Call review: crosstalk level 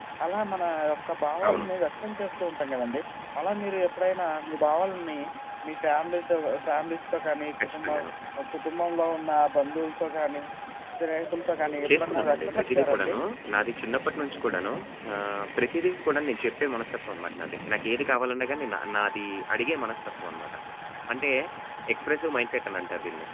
present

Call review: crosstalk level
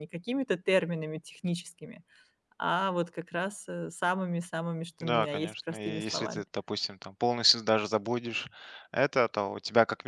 present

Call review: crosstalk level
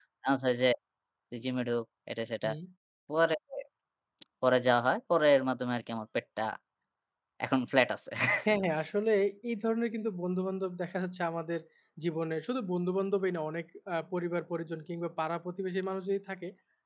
none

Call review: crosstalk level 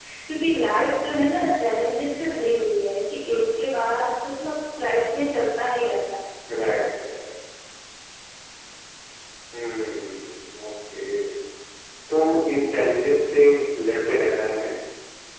none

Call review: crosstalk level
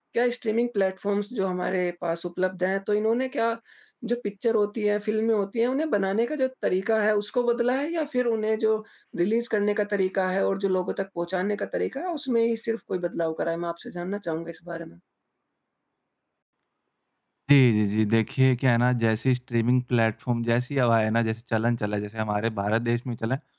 none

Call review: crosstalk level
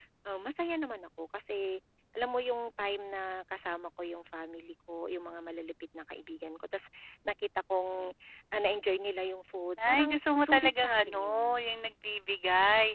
present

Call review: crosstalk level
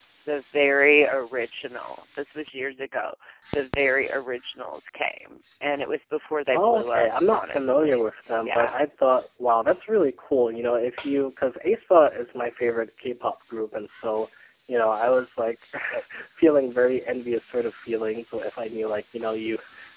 present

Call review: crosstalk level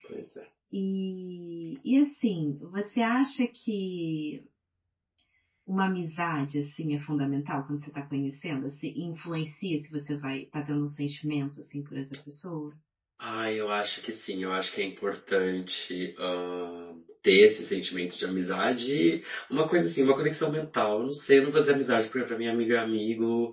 none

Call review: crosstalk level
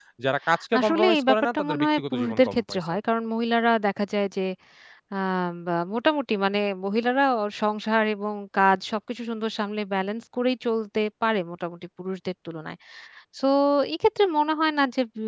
present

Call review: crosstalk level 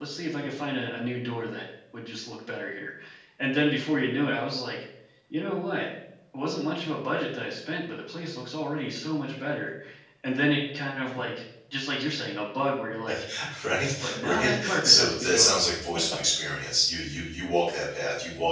present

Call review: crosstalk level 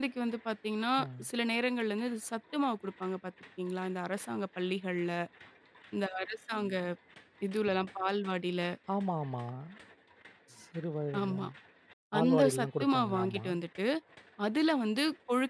present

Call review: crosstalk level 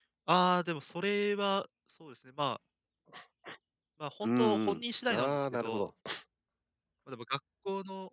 present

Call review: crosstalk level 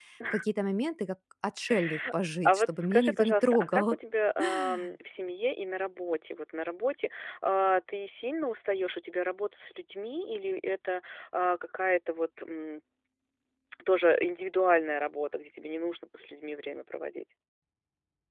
present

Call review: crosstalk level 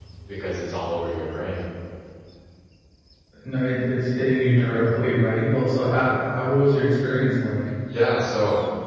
none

